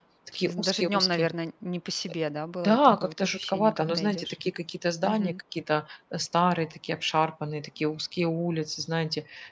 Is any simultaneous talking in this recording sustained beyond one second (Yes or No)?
Yes